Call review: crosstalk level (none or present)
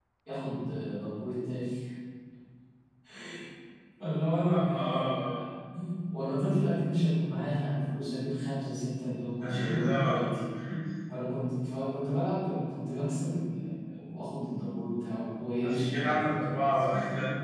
present